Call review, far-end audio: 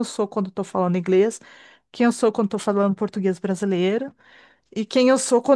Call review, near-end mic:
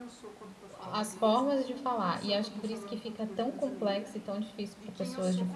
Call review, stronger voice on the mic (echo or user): user